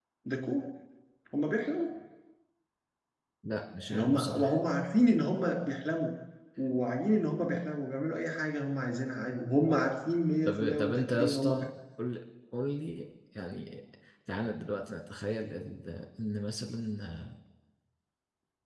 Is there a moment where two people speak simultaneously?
Yes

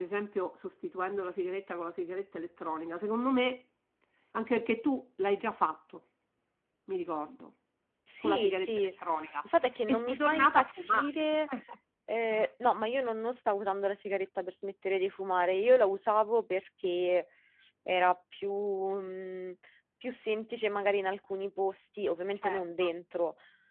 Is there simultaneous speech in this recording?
Yes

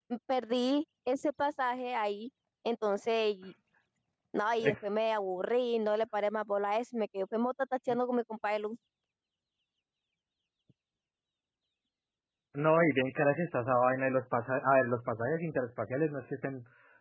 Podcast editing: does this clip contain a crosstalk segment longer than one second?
No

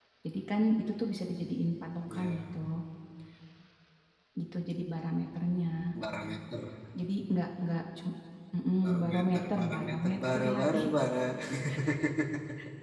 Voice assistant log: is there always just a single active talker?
No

